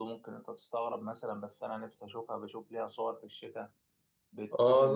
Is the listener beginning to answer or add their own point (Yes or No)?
Yes